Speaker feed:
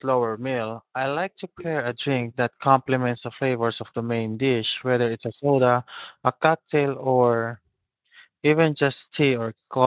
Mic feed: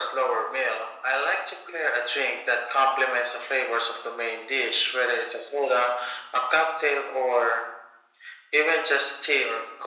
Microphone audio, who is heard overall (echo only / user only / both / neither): echo only